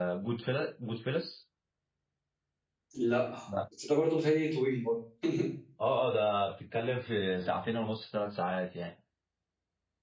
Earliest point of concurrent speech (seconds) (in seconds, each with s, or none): none